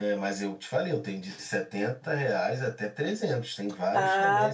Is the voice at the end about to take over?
Yes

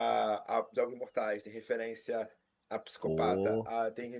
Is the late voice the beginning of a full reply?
No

